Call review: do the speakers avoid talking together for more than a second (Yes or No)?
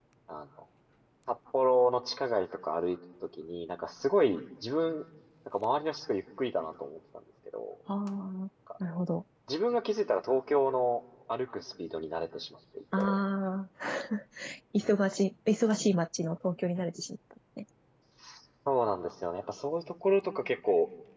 Yes